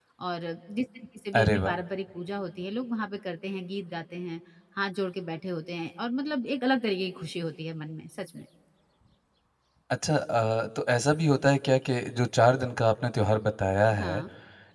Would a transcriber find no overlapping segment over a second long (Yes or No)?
Yes